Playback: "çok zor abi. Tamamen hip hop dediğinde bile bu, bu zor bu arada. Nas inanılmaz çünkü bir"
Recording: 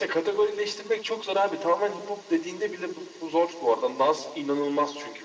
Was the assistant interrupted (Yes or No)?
No